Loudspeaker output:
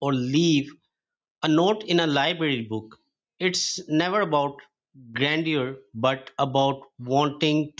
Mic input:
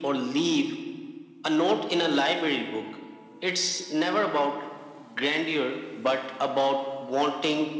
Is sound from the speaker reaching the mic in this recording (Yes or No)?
Yes